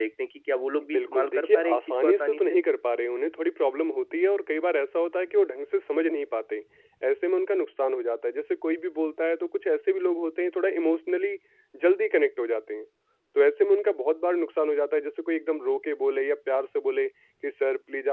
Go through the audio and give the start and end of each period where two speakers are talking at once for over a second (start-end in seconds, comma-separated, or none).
0.9-2.6